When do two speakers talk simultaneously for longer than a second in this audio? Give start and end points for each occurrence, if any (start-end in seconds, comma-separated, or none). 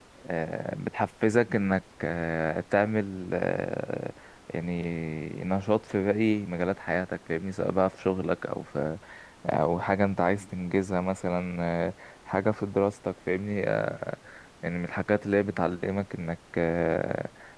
none